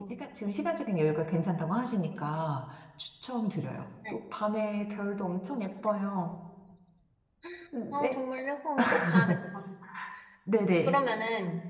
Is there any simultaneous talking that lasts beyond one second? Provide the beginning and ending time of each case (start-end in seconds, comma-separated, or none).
none